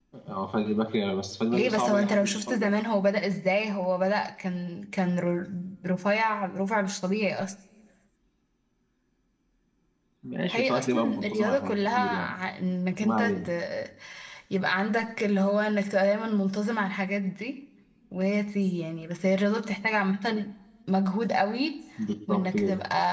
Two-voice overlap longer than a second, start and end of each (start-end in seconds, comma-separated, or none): 1.5-2.8, 10.5-12.3